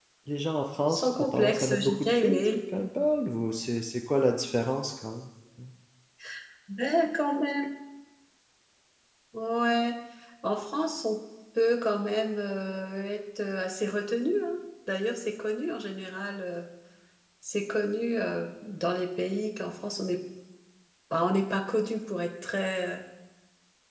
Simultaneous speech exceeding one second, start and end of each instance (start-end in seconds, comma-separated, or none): 0.9-2.5